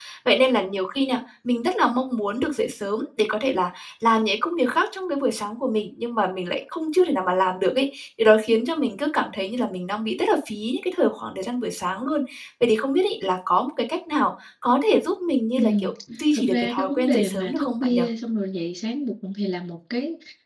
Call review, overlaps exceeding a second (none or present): present